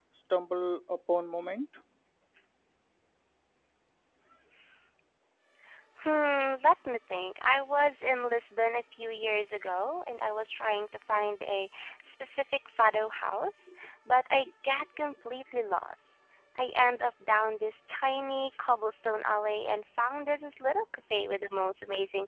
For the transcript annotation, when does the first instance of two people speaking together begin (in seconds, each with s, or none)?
none